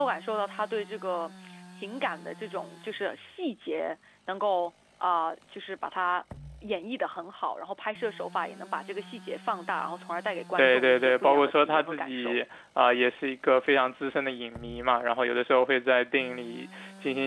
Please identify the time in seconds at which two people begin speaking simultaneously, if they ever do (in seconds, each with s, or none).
10.6 s